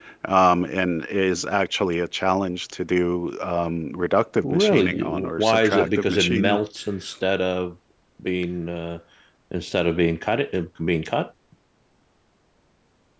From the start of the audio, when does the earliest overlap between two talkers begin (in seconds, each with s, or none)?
4.4 s